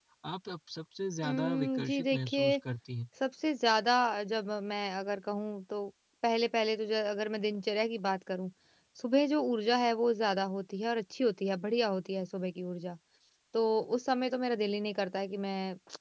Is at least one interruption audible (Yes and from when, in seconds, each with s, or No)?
Yes, from 1.2 s